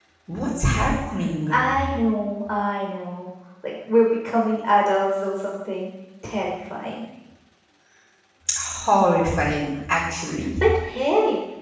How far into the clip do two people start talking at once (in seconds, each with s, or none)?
none